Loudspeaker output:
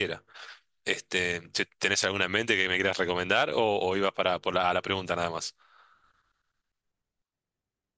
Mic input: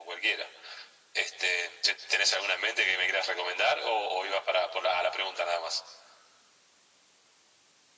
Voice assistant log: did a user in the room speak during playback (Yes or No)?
No